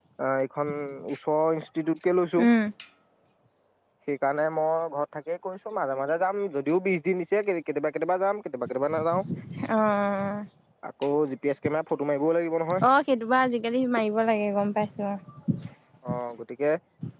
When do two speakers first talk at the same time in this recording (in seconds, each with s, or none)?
none